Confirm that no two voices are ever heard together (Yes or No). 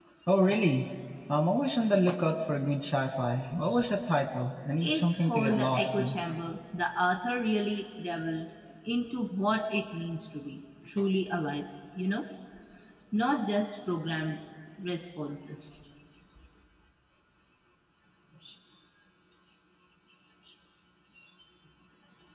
No